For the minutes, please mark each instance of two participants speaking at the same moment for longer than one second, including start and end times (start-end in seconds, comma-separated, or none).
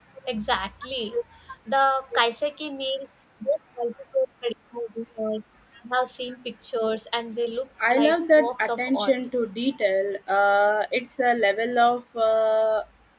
7.9-9.1